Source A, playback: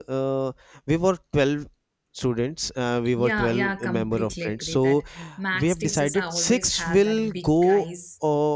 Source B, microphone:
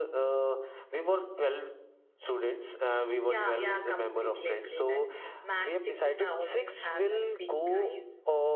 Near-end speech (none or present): none